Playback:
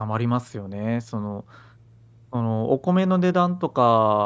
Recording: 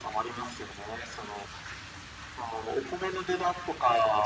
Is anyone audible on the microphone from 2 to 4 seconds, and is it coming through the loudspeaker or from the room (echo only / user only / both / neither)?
echo only